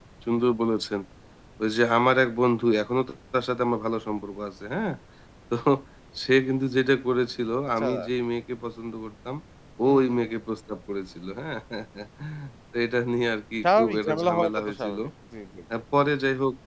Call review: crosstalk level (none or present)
present